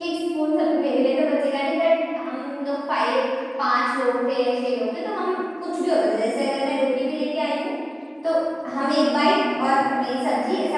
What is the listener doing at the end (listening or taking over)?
listening